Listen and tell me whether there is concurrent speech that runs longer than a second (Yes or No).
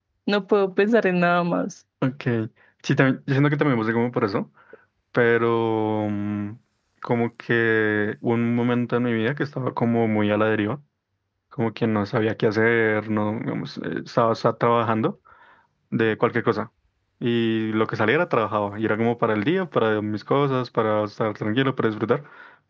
No